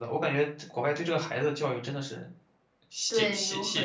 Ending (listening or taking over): taking over